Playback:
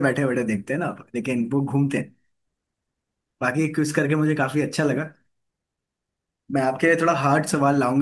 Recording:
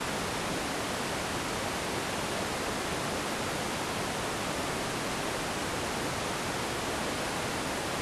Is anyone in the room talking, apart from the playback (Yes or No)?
No